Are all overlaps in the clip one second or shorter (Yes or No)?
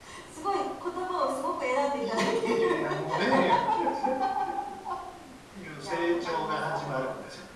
No